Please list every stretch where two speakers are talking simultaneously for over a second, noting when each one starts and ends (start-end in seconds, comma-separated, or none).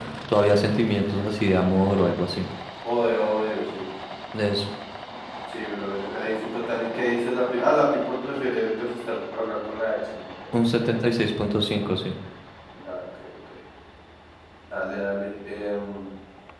none